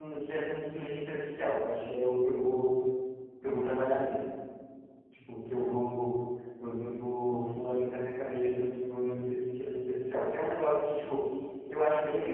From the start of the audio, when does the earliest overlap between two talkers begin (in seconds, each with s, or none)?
none